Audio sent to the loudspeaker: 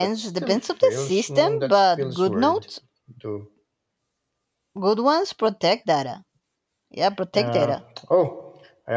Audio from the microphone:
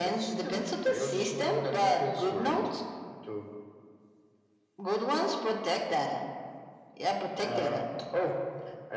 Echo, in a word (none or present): present